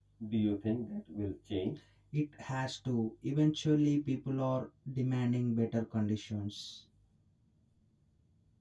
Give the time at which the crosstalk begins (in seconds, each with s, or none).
none